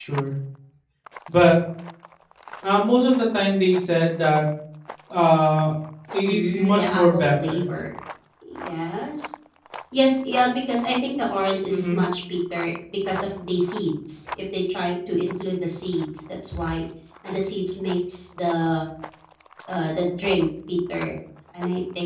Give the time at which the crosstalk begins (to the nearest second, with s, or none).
6 s